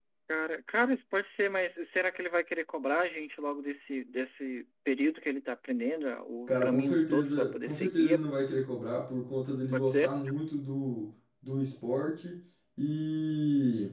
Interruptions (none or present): present